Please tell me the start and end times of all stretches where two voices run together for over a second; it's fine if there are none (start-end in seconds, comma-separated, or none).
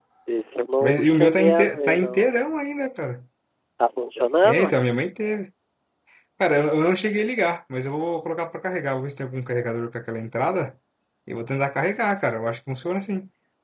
0.8-2.3